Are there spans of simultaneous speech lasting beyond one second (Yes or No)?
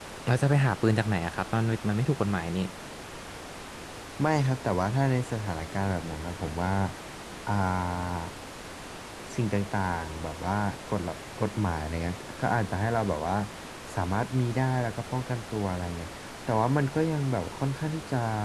No